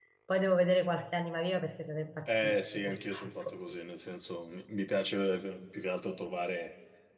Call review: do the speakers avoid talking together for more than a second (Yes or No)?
No